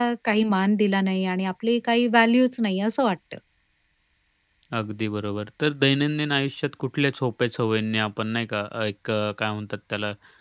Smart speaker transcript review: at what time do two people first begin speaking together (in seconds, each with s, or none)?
none